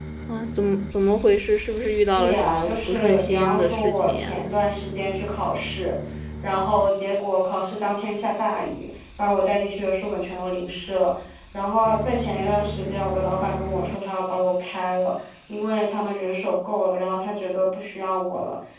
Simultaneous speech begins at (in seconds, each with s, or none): 2.0 s